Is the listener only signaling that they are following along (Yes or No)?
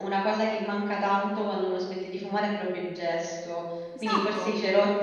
Yes